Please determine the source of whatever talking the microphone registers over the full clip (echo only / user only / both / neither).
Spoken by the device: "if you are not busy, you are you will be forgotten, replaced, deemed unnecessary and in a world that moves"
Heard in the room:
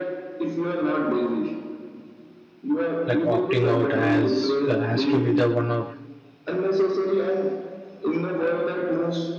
both